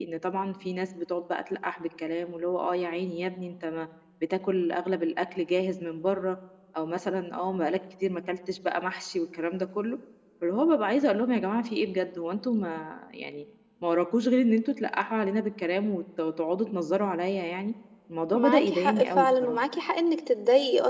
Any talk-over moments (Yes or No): Yes